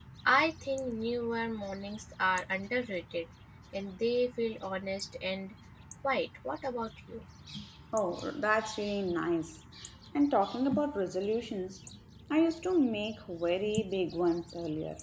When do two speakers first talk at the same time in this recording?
none

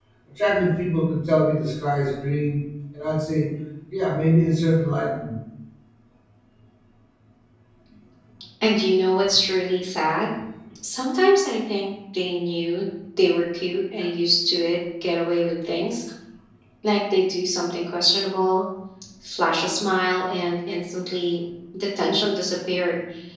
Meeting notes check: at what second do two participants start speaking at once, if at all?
none

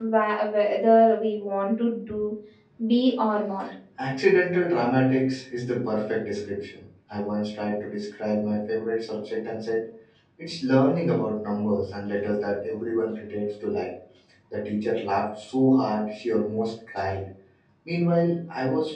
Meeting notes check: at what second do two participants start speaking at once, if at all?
none

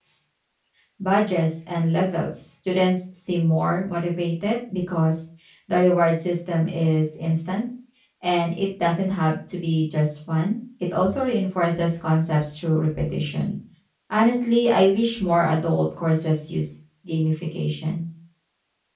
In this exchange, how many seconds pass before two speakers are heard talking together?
none

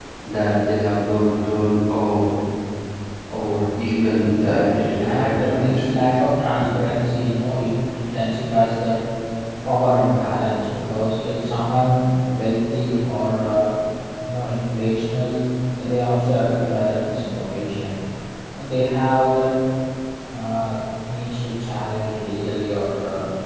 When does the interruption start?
4 s

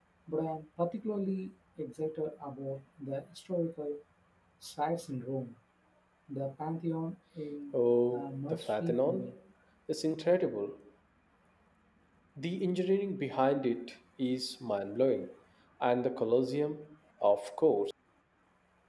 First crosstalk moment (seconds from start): 8 s

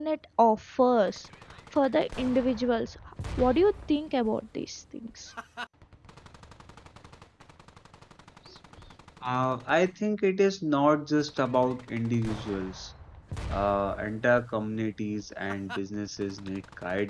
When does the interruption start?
none

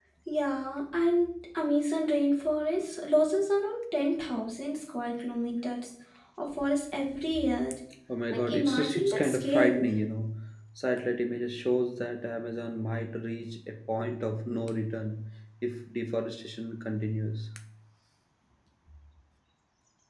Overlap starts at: 8 s

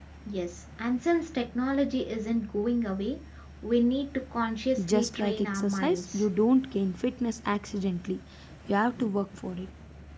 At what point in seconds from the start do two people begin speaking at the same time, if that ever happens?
5 s

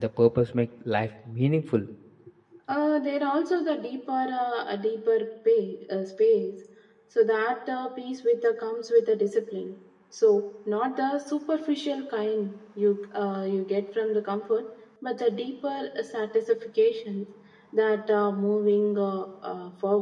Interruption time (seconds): none

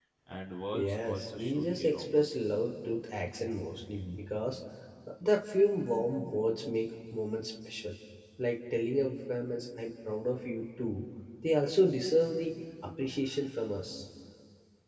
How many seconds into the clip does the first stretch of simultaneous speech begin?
1 s

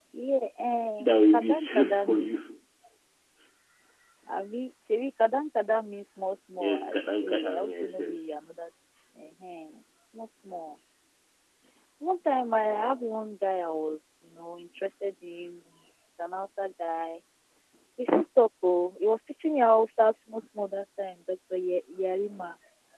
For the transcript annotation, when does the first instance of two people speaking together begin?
1 s

